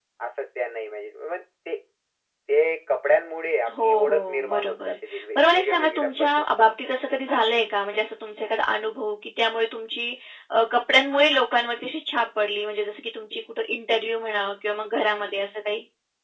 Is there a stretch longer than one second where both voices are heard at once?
Yes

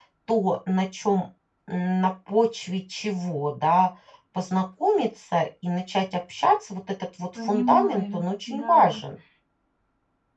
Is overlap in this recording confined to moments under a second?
No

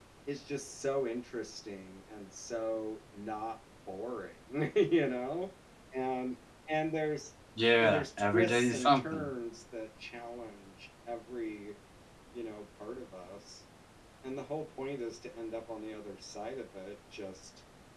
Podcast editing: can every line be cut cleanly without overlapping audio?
No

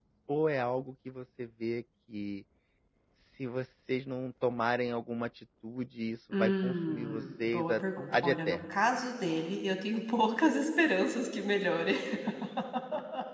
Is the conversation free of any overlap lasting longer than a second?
No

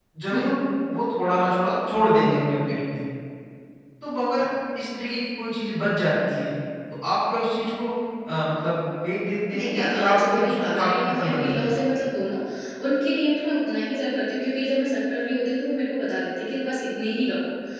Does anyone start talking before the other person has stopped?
Yes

